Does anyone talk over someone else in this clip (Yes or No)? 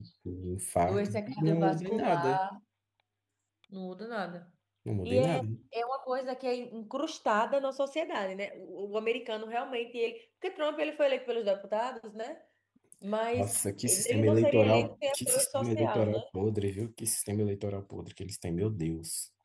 Yes